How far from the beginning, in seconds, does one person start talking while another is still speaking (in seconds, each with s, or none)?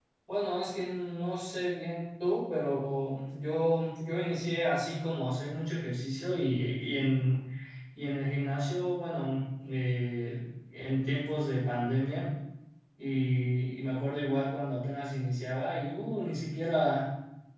none